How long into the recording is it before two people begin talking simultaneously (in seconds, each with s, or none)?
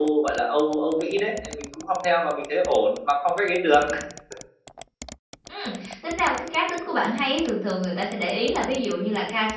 none